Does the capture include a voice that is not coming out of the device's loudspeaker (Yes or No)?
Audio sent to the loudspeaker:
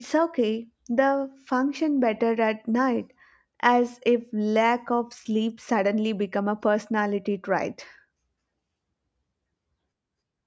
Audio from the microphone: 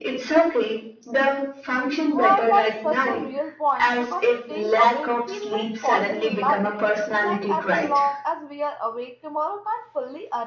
Yes